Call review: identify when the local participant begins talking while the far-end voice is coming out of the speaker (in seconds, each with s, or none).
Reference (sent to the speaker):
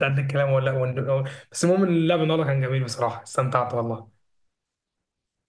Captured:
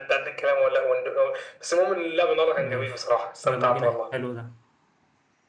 2.6 s